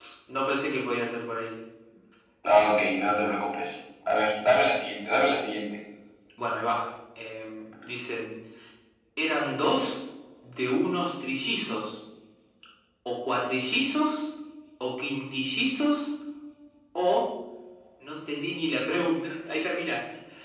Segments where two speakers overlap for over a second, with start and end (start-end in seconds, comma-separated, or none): none